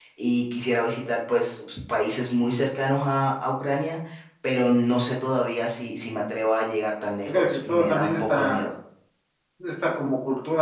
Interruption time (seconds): 7.3 s

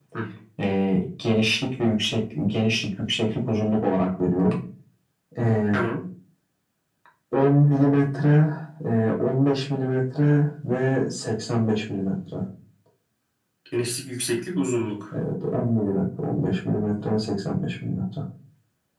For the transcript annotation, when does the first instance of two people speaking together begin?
none

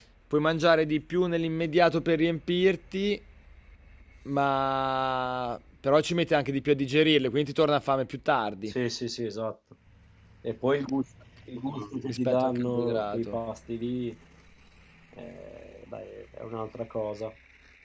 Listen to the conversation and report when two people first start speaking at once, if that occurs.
12.1 s

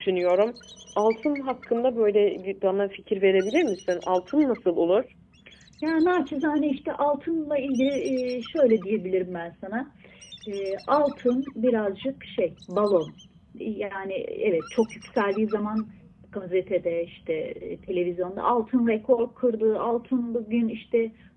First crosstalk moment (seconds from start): none

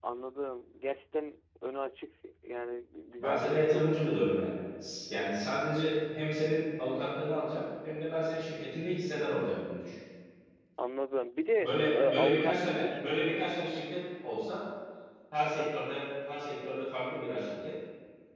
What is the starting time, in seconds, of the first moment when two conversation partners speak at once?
3.2 s

